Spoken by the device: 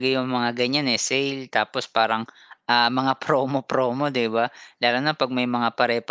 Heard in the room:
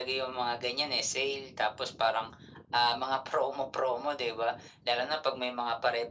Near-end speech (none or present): none